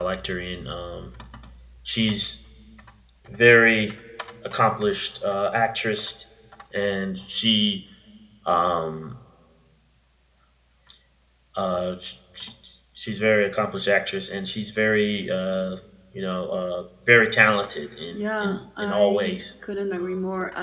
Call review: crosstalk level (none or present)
present